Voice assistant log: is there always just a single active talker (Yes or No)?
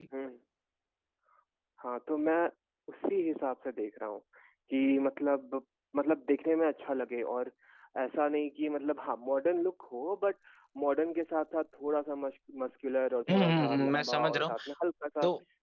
No